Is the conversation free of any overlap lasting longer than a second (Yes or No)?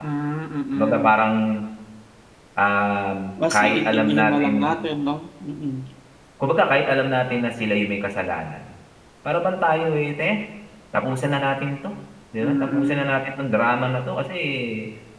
No